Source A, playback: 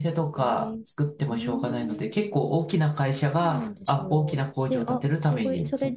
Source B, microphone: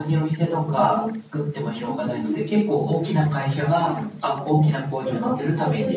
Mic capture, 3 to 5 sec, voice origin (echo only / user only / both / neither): echo only